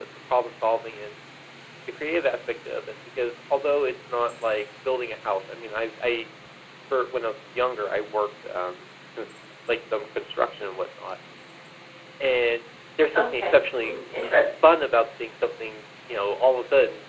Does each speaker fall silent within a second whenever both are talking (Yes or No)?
No